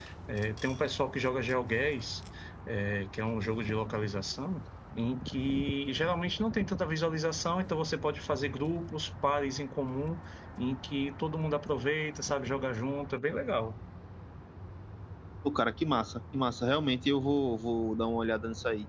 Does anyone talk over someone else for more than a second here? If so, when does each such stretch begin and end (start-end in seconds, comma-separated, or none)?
none